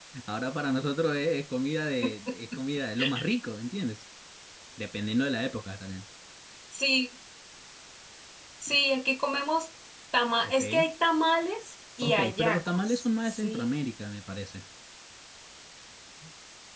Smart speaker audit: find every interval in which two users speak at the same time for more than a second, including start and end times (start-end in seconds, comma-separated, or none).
12.0-13.7